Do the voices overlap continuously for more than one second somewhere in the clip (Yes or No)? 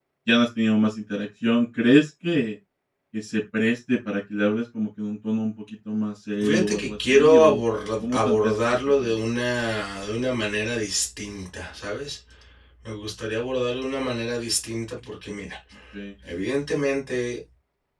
Yes